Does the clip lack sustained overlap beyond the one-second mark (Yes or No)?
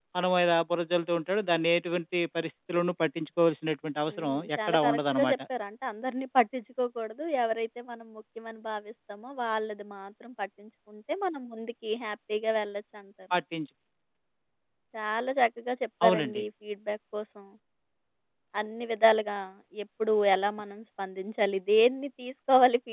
No